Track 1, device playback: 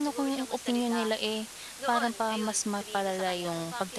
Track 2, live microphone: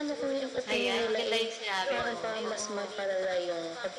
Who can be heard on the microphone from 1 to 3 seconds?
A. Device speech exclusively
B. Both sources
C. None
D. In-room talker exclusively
B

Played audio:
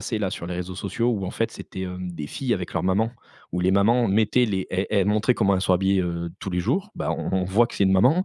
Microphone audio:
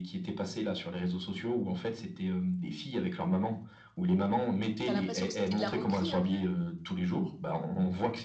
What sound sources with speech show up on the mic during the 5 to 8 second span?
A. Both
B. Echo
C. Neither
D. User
A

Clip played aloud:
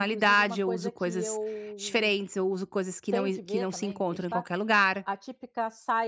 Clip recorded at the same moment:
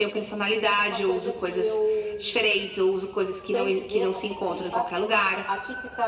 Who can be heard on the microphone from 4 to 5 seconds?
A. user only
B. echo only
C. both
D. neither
B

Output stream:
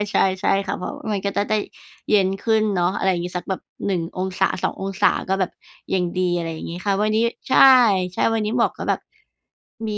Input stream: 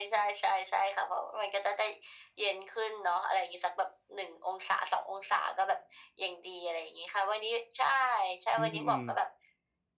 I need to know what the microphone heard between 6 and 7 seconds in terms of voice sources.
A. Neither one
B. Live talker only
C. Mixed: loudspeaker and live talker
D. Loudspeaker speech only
D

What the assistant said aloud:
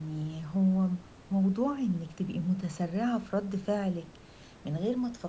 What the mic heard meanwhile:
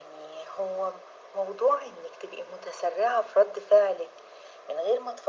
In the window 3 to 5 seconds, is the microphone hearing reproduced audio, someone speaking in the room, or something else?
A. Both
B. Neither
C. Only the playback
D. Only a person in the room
C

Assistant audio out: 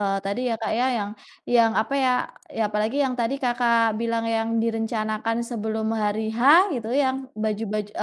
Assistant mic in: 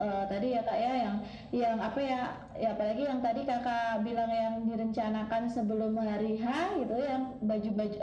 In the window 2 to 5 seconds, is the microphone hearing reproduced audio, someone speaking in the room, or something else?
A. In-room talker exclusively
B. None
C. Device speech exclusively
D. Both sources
C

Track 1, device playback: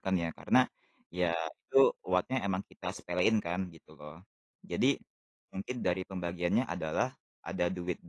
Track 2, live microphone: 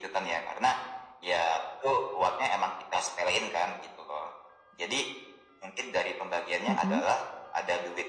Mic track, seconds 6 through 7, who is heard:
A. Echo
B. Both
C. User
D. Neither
B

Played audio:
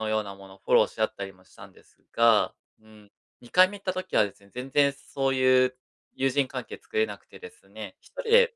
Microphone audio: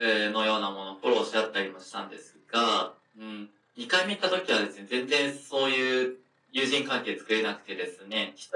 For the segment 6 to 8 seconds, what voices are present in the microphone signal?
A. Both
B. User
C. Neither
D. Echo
D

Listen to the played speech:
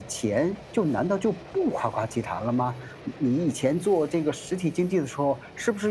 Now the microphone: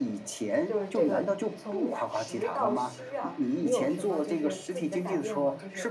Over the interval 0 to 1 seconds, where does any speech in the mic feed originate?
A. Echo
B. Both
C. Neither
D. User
B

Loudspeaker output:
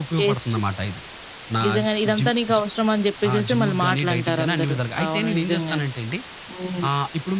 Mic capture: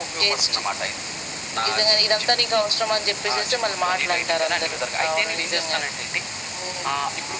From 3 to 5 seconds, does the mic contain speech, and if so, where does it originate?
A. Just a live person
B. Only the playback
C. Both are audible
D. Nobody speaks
B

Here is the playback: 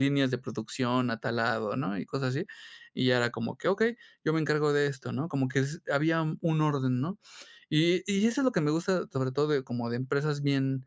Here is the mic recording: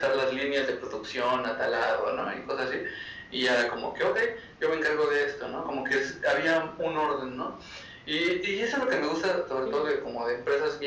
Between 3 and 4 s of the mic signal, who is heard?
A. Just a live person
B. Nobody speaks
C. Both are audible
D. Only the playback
D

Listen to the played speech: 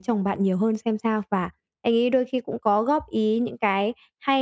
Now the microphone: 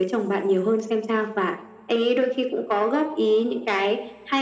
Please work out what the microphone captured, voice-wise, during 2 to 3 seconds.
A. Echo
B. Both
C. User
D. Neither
A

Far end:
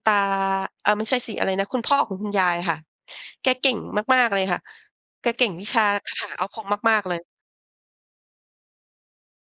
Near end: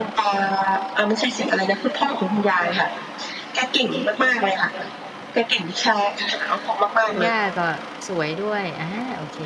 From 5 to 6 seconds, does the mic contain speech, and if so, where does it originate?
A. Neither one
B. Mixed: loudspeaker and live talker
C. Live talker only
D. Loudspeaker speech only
D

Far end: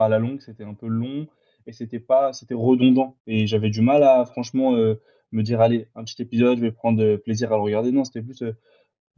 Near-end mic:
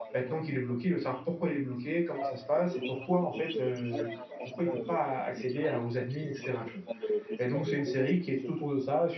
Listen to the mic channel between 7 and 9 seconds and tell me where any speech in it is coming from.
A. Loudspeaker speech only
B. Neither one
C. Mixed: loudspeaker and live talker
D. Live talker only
C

